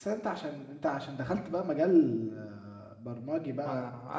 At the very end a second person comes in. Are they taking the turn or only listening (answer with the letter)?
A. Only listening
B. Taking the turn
B